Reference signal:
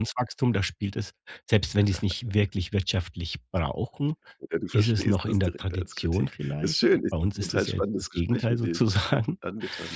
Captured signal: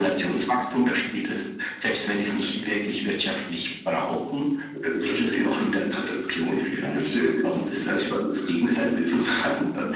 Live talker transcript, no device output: none

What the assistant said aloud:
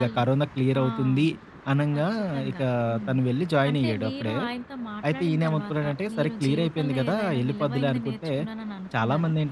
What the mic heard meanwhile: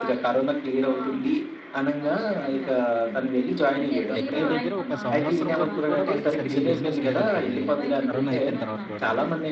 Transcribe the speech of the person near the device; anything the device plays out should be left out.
దగ్గర దగ్గర ఒక సంవత్సరం వరకు కూడా వాళ్ళకి సరిగ్గా బిజినెస్ లేదంటండి. కరోనా అయిపోయిన తర్వాత కూడా.

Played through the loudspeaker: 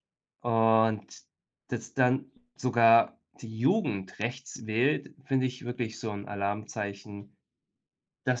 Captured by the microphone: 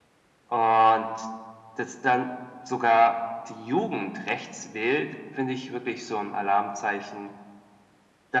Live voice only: none

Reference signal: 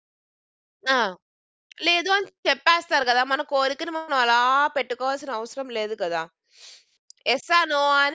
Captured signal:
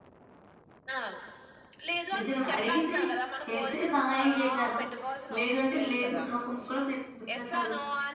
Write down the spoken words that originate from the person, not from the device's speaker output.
నిజంగానే అడిగితే చేస్తే సహాయం చేసారు. లేదు అంటే లేదు అని ఒక ముక్కలో తేప్ చెప్పేస్తారు.

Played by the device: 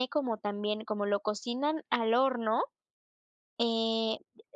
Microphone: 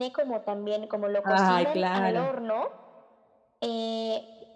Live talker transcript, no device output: Ay, claro.

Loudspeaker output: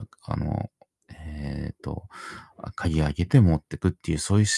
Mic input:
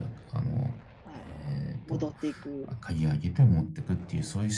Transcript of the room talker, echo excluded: あの、戻っていく

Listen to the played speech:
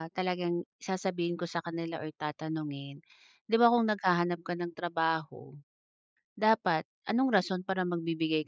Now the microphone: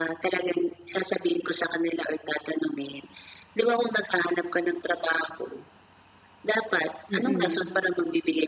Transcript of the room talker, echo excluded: Mm.

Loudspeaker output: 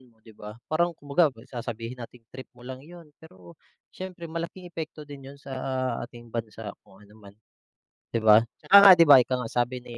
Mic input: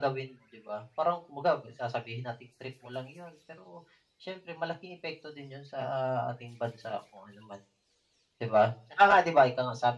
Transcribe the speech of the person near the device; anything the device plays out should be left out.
none

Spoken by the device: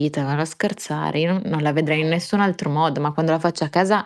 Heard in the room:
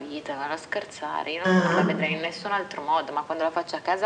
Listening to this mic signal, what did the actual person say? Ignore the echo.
Ah-ah.

